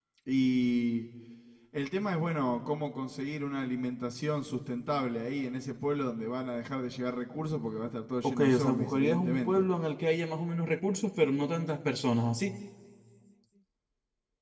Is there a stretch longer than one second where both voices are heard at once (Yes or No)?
Yes